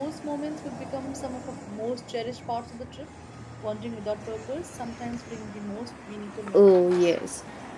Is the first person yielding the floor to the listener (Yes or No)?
Yes